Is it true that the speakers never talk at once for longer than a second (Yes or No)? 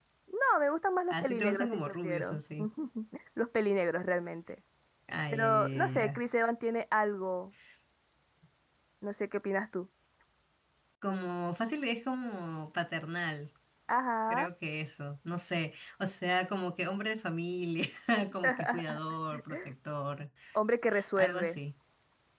No